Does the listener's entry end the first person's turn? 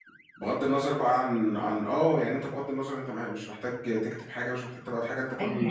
Yes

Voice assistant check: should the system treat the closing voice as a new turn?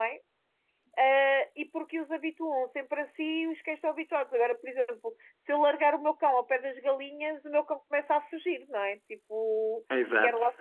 No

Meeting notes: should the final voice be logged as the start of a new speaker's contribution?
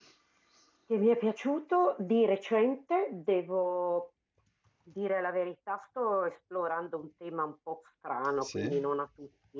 No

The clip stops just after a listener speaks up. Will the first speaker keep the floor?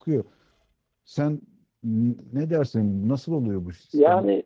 No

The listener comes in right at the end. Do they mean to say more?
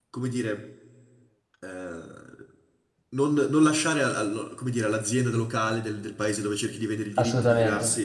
No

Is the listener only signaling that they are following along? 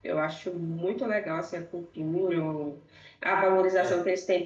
Yes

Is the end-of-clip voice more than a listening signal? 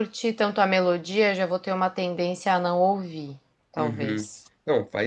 Yes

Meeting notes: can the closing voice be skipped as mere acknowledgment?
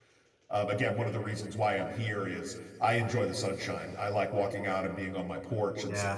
No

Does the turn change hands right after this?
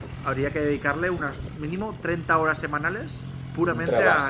Yes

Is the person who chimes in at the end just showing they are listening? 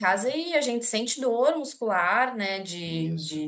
Yes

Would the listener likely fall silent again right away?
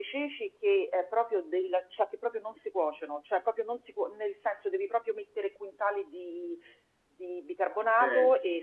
Yes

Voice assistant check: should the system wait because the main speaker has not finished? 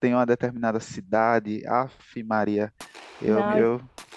No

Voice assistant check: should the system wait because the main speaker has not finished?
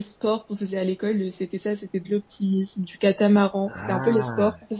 Yes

